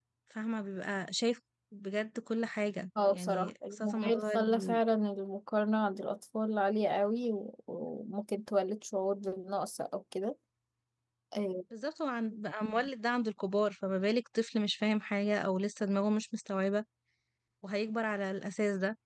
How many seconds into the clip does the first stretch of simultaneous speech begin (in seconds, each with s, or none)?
3.0 s